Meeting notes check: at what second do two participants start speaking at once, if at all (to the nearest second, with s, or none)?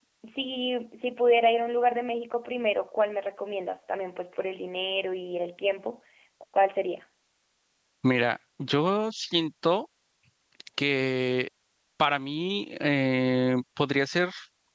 none